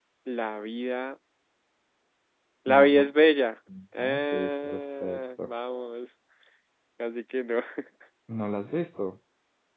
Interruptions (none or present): present